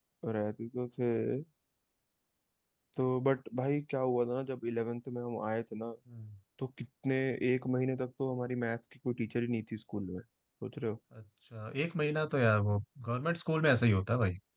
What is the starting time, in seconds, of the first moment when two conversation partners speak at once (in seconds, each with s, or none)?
none